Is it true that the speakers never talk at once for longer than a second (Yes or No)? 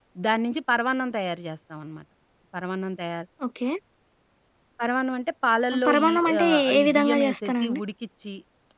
No